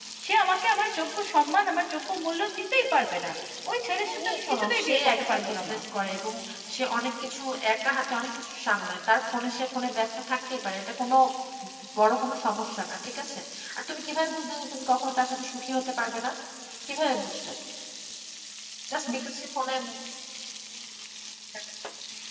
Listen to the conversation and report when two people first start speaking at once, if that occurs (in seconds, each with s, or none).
4.0 s